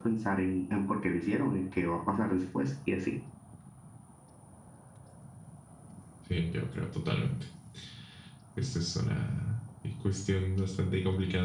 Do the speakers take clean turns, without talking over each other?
Yes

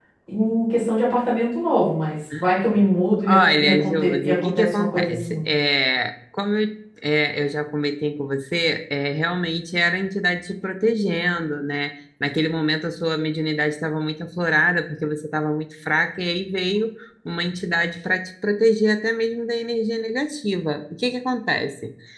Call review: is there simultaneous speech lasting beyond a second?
Yes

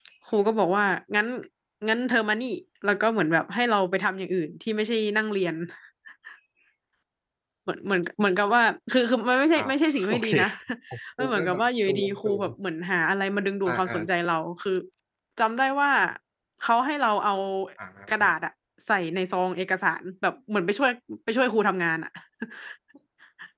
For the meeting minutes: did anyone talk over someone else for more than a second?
Yes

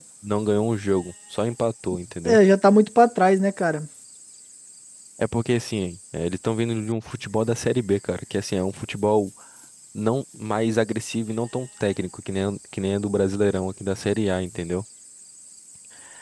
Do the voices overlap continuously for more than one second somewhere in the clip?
No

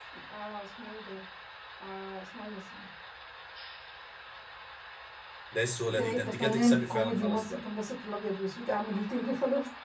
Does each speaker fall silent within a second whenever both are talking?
No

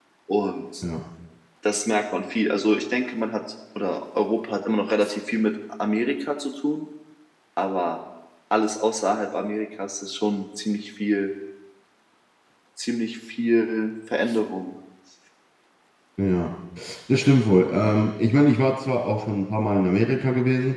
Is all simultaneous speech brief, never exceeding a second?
Yes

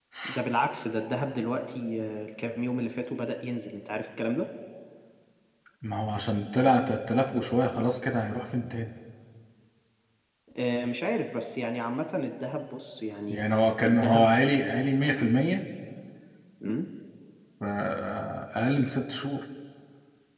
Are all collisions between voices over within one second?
Yes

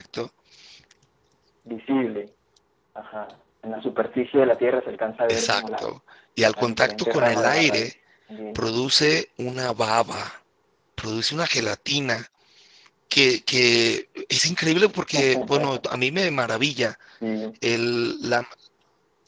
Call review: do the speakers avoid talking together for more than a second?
No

